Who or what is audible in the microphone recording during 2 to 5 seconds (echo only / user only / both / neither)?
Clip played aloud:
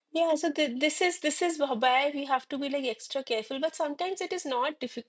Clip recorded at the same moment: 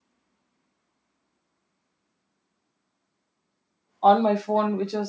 user only